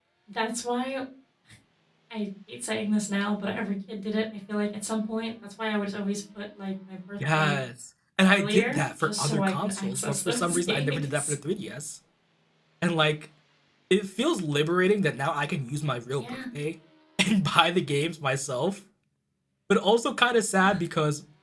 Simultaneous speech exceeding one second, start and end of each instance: 8.3-11.3

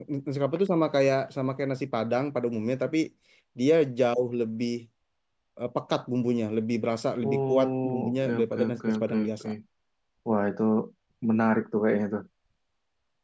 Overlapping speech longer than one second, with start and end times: 7.2-9.5

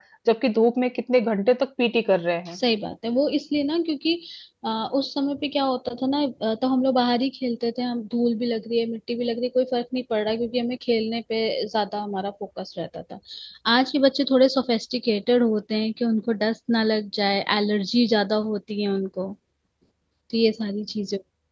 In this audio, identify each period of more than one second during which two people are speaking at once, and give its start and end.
none

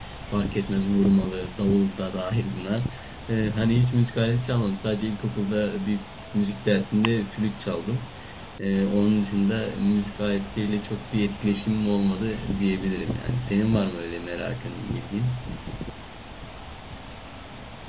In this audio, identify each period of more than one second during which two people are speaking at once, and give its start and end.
none

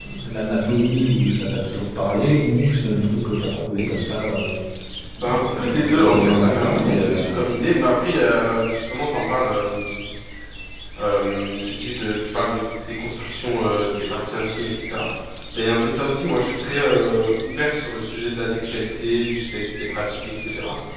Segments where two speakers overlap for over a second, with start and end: 5.2-7.3

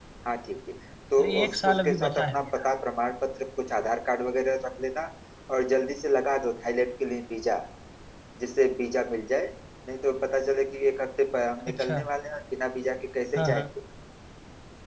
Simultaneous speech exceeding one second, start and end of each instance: 1.2-2.7

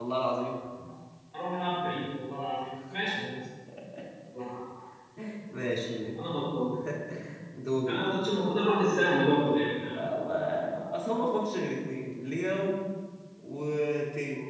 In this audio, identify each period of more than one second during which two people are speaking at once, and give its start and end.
none

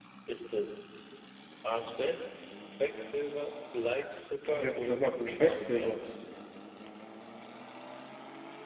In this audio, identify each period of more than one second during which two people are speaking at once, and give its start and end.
4.5-5.9

